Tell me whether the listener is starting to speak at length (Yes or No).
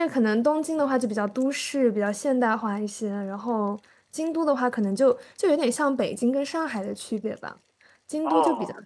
No